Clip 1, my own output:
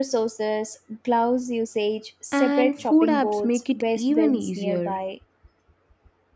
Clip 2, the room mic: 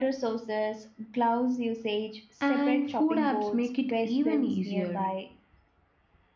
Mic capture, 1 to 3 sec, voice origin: echo only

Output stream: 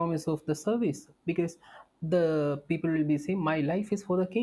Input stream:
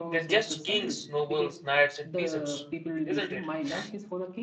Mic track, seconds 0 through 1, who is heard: both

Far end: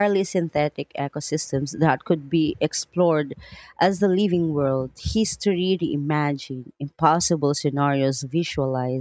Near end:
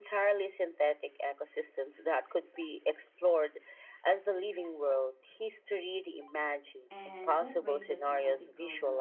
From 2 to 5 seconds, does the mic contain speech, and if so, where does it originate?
echo only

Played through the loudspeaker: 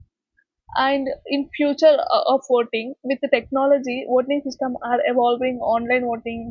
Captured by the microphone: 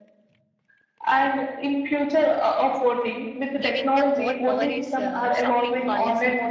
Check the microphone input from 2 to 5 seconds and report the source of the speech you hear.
both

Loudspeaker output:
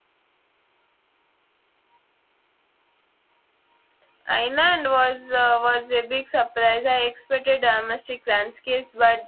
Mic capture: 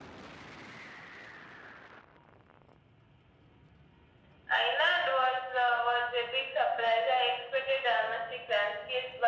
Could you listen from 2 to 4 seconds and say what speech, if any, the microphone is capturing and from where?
neither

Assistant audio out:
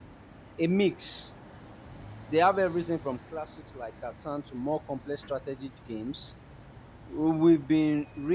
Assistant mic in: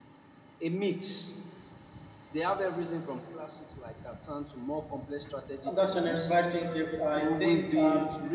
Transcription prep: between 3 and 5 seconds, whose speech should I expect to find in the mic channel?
echo only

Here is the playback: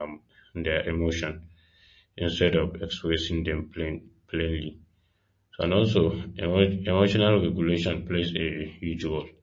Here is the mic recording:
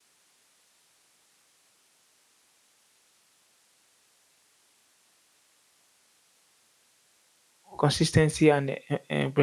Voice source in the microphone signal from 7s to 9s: user only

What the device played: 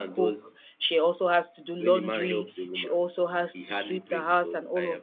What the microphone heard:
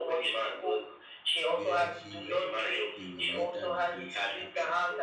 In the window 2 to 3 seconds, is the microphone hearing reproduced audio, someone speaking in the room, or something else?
both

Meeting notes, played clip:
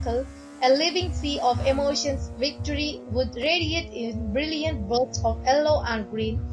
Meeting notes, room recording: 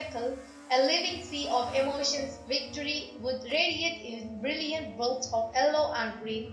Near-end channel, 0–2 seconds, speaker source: echo only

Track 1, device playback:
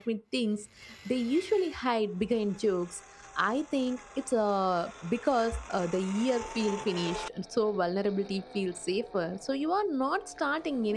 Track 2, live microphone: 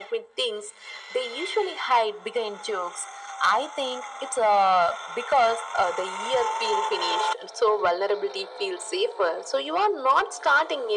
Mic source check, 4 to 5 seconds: echo only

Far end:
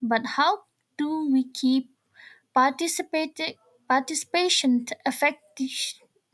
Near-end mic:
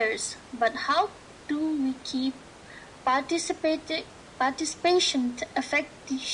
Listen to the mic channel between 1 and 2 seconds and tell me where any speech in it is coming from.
echo only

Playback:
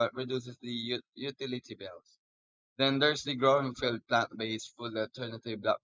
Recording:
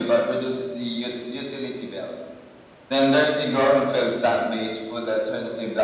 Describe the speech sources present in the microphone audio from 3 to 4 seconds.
echo only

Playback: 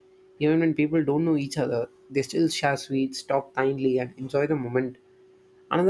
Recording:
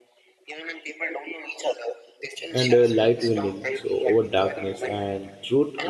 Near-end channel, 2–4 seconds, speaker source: both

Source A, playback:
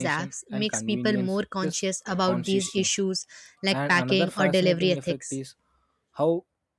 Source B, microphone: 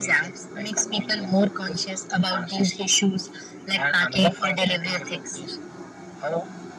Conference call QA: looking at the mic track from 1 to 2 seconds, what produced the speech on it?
echo only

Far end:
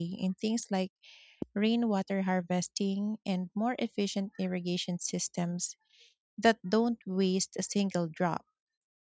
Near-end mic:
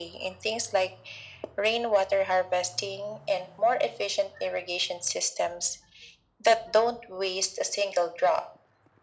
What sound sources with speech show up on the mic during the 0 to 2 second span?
echo only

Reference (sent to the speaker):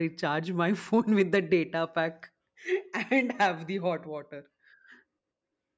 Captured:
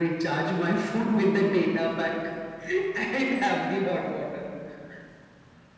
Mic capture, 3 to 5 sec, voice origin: echo only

